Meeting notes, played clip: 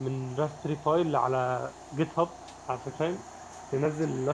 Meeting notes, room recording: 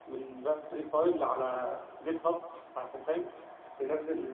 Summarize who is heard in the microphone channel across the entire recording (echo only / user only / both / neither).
echo only